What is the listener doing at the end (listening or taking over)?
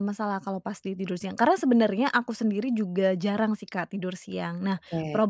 listening